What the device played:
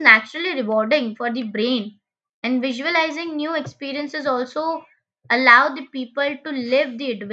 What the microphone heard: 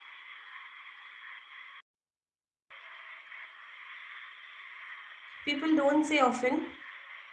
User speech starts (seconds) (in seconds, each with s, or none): 5.4 s